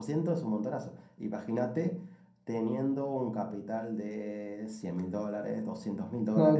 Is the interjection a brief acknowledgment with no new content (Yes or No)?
No